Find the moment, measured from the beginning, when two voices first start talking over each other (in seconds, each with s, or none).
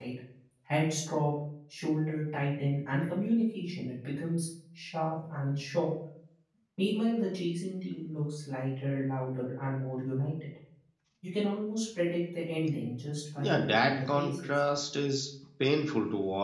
13.4 s